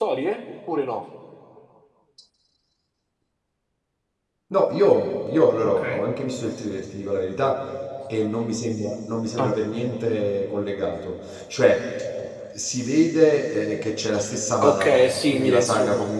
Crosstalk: present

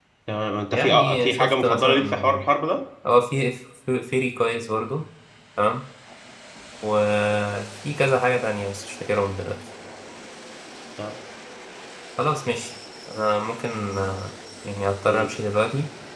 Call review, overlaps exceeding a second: present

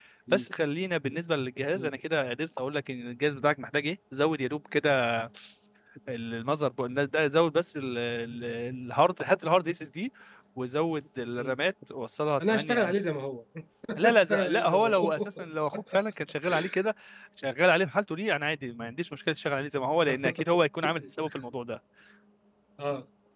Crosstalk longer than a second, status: present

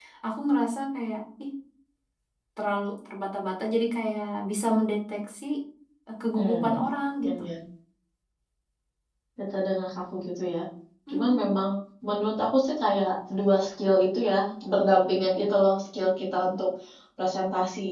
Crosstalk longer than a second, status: none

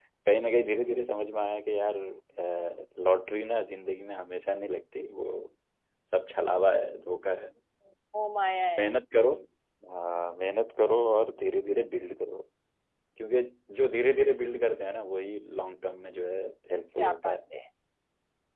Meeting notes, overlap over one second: none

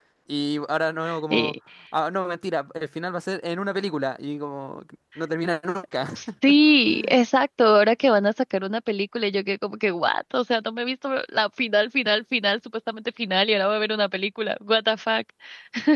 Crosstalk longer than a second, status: none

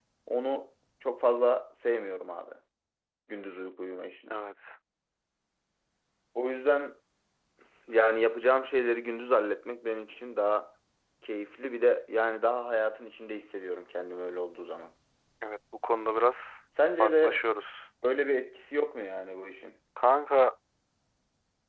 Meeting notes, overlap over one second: none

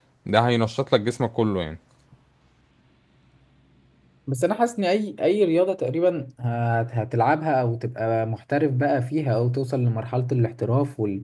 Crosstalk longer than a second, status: none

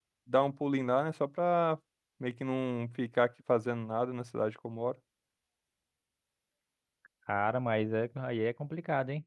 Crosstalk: none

